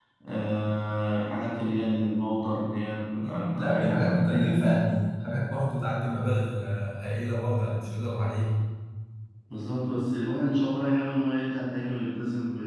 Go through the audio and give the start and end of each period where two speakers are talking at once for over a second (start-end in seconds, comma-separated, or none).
3.2-4.8